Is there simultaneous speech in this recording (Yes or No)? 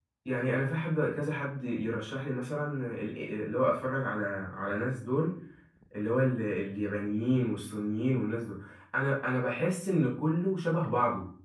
No